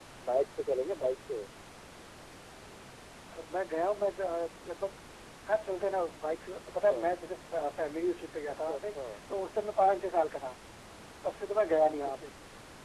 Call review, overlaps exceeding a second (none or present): none